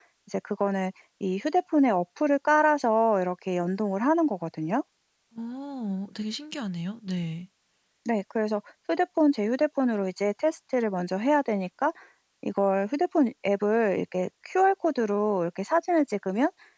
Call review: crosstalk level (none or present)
none